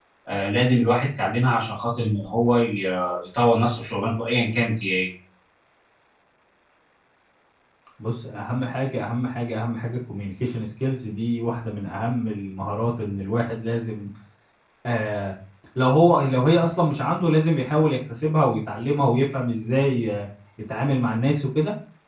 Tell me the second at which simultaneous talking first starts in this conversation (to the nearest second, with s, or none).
none